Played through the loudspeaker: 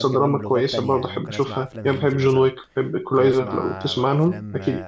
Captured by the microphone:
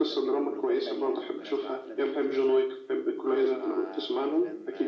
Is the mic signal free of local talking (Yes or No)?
Yes